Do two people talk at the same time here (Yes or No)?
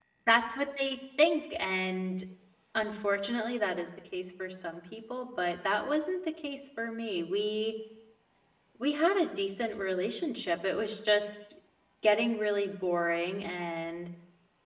No